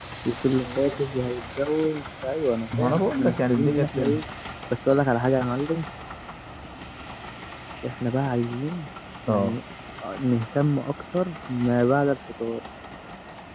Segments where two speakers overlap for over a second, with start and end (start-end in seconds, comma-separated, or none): 2.8-4.2